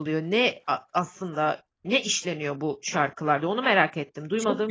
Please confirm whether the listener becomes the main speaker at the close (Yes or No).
Yes